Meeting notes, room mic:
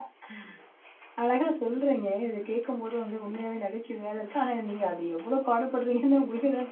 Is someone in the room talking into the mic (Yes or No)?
Yes